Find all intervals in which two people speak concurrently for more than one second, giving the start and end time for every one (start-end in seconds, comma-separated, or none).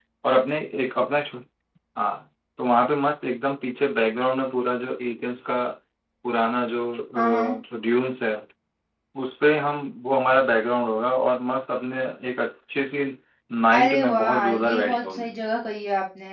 13.7-15.4